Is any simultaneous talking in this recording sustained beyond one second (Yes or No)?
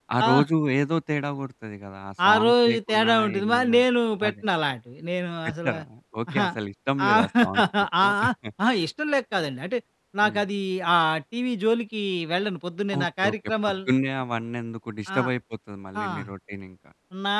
Yes